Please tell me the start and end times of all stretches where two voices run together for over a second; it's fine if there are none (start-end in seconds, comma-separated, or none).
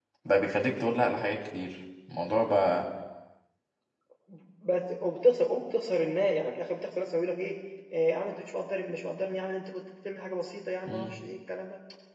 none